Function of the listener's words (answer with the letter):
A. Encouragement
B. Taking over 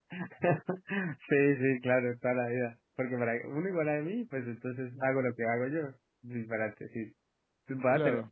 A